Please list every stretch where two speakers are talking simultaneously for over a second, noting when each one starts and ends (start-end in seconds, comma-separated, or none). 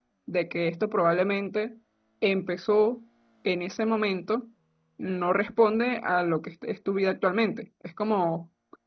none